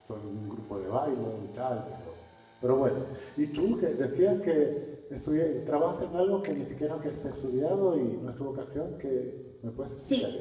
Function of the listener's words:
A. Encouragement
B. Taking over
B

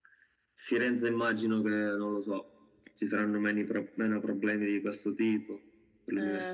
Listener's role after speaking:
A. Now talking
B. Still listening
A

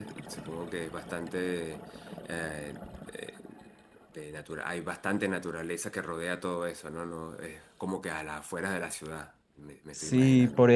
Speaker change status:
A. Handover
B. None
A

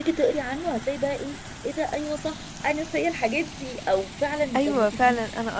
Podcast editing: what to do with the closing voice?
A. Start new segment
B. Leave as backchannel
A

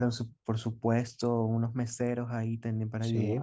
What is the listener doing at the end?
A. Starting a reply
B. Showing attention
B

